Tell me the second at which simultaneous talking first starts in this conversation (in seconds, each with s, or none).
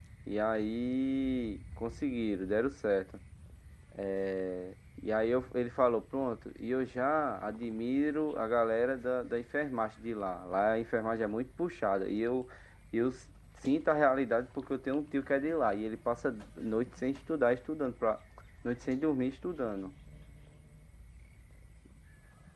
none